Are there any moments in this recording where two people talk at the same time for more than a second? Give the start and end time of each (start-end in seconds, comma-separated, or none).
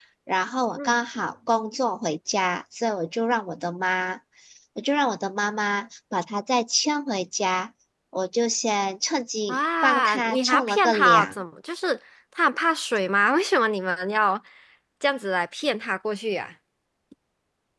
9.5-11.3